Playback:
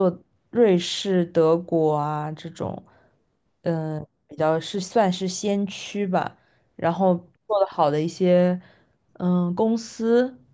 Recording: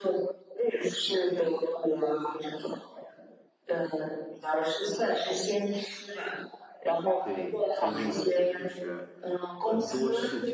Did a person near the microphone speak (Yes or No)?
Yes